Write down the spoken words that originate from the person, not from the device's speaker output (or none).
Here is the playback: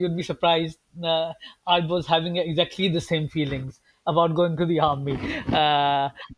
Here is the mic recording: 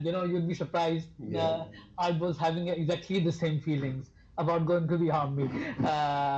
Yeah,